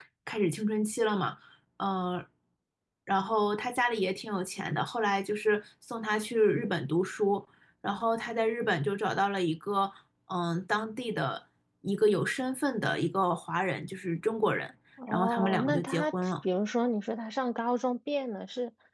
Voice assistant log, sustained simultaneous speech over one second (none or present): present